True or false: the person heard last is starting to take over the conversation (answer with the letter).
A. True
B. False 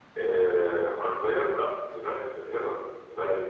B